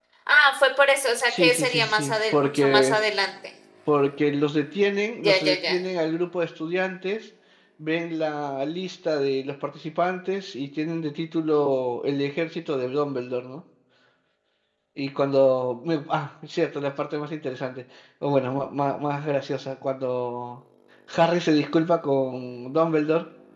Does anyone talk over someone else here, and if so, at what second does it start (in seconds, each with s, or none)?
1.3 s